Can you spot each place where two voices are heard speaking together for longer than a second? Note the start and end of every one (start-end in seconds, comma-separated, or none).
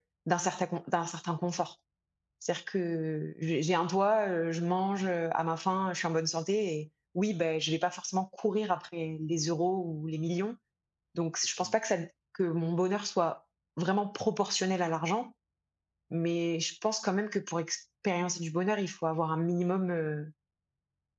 none